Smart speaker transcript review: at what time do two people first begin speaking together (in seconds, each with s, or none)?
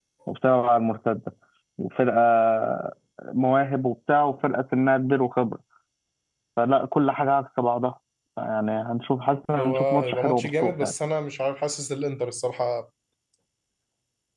9.5 s